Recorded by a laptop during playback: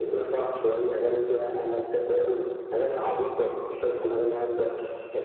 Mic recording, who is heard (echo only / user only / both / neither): echo only